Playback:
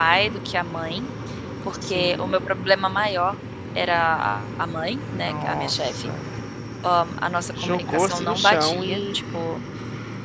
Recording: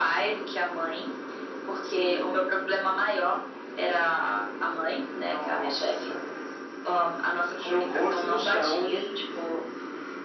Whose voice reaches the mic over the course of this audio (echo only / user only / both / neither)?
echo only